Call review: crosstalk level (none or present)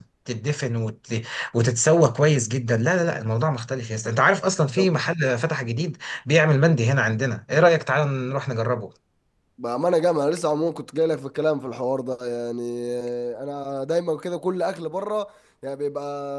none